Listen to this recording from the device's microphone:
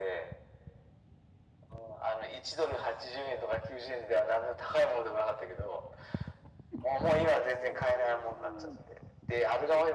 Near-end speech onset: none

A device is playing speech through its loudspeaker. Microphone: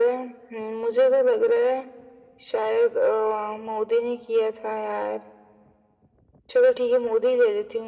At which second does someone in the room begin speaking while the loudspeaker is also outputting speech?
none

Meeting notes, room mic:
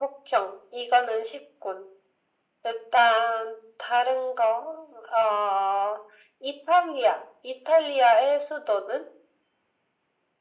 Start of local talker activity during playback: none

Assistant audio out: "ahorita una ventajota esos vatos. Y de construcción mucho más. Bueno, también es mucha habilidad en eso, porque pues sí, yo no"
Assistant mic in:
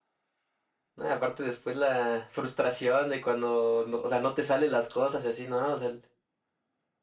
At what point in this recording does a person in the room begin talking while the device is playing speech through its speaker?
1 s

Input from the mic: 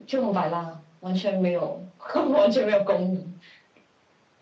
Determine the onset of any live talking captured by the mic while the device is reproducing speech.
none

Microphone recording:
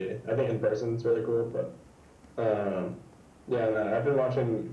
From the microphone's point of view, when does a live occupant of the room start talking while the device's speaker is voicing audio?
none

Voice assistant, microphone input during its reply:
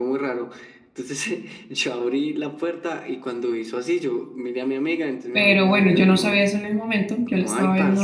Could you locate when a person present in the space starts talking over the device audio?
5 s

